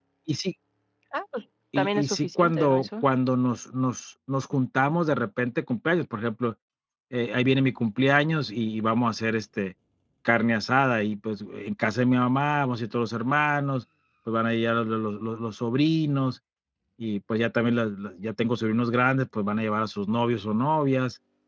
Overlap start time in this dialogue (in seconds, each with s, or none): 1.8 s